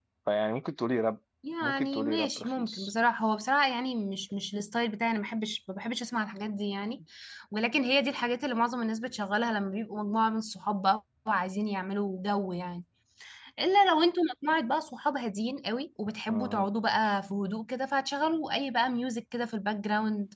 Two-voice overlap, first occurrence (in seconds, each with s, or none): 1.6 s